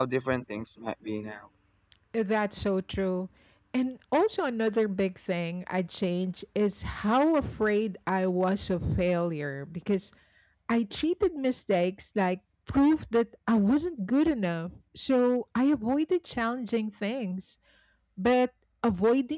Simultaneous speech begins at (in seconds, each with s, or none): none